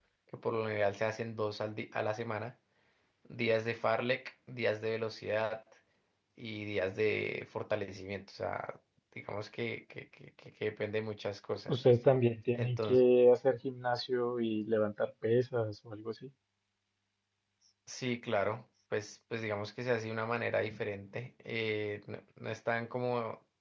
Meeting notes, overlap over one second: none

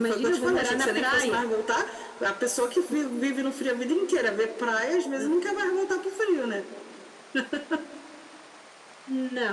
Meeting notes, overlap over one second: present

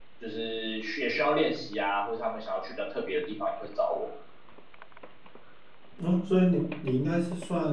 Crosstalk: none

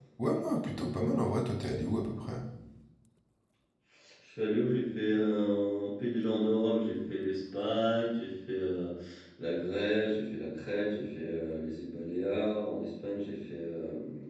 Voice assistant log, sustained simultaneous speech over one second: none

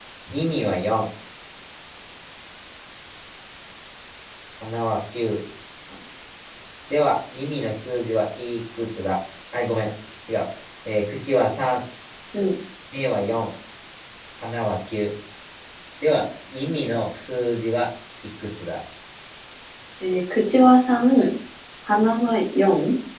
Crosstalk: none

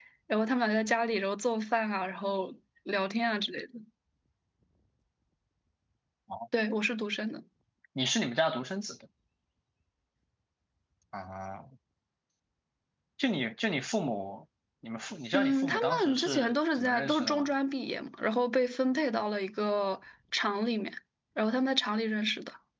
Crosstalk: present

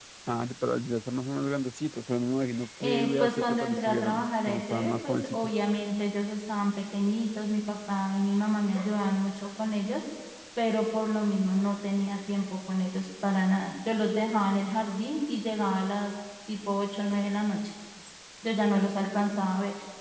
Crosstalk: present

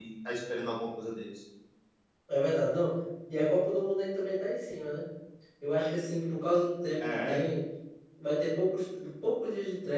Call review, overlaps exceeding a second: none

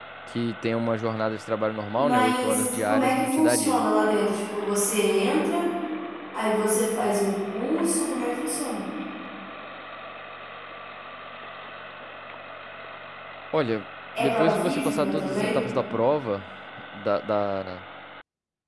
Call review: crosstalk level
present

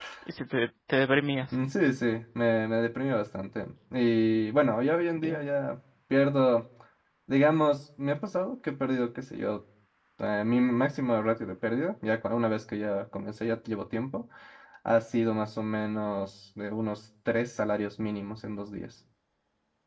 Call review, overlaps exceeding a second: none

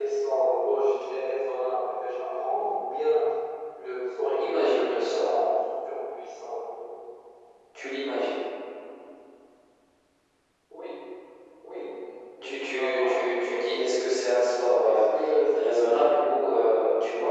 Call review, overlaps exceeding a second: present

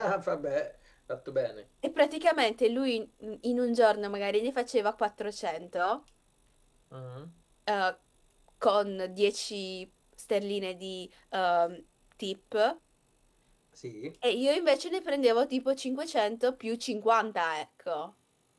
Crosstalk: none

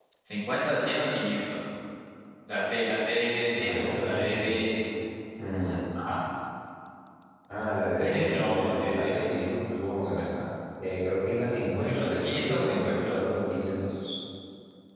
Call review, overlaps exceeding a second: present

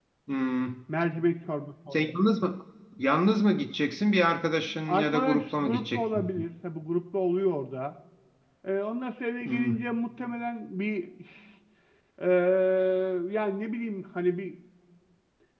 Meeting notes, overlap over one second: present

